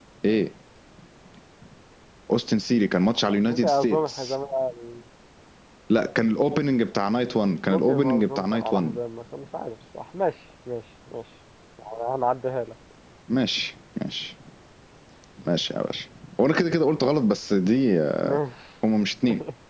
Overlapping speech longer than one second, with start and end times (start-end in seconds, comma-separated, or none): 3.0-4.4, 7.7-9.0